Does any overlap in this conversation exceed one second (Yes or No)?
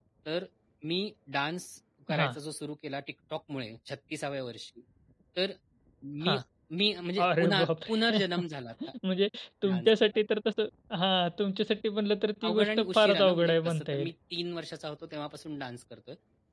Yes